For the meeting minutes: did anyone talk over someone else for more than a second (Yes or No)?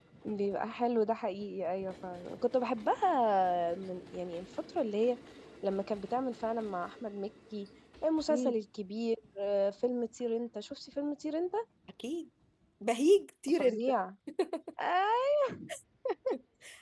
No